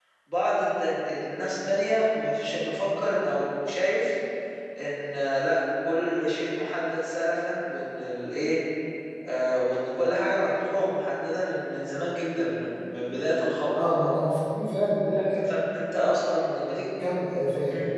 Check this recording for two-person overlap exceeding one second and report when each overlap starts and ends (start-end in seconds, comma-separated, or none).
none